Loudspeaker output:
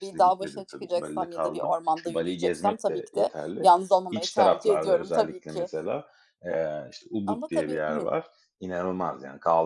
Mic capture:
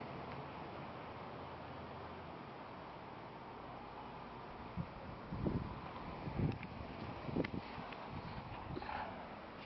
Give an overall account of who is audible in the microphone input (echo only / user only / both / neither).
neither